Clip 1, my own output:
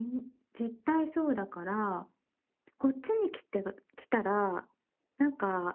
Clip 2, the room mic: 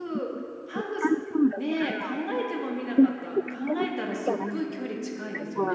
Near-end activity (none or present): present